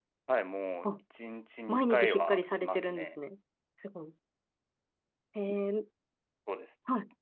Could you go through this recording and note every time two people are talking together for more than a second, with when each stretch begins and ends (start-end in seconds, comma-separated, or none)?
1.7-3.1